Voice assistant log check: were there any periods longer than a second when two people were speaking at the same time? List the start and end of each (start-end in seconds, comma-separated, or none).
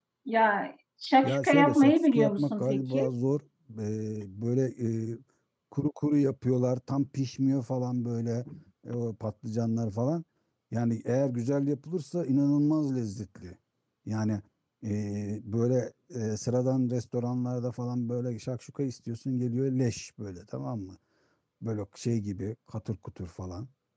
1.2-3.1